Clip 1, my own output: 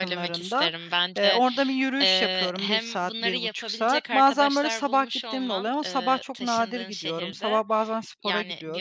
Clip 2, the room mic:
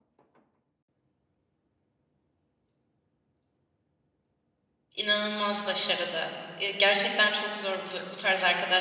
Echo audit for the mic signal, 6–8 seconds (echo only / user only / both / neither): user only